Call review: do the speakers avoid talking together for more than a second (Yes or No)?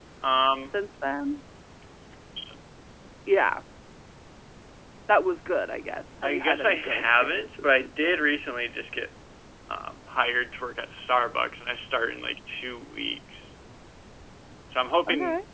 No